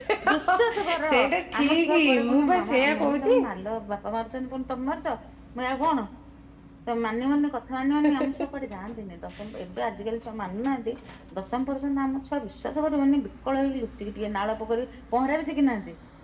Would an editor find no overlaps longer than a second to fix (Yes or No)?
No